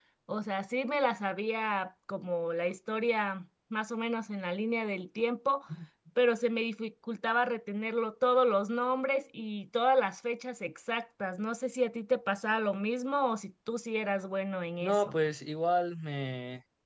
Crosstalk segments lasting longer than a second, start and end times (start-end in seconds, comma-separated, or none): none